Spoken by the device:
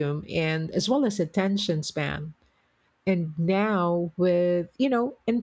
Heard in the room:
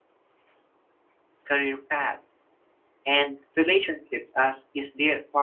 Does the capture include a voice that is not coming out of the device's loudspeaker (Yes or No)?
Yes